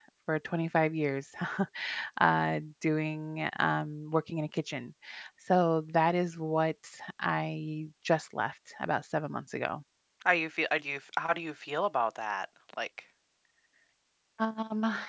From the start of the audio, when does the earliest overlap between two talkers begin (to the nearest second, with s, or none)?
none